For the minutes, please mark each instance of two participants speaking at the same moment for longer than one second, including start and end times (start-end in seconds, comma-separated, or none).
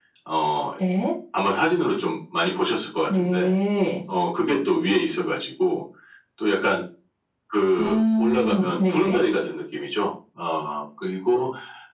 7.8-9.2